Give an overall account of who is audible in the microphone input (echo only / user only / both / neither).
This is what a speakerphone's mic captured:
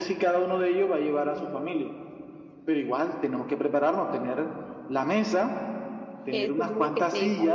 both